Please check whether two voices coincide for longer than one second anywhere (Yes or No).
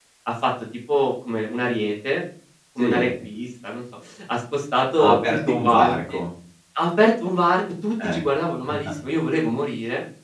Yes